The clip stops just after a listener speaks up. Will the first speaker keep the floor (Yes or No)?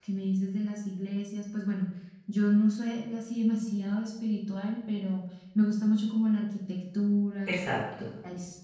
Yes